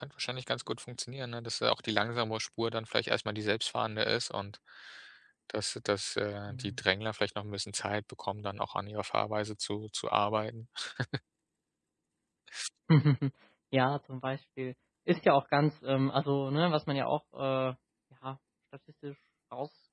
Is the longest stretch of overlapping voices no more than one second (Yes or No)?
Yes